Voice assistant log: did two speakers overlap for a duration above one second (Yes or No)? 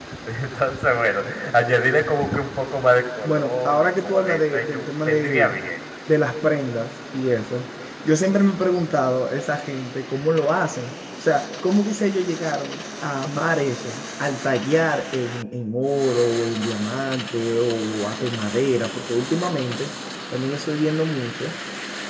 Yes